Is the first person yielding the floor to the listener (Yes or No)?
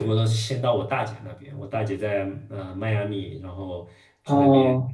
No